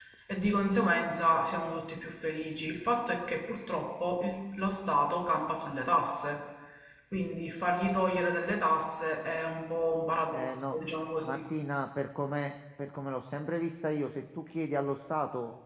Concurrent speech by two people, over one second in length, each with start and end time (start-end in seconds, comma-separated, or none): none